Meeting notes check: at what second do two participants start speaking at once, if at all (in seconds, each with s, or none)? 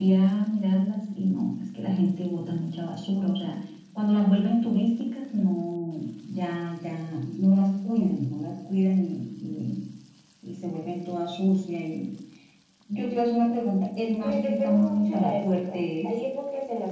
14.2 s